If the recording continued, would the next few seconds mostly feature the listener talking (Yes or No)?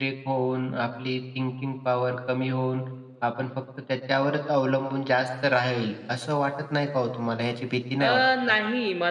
Yes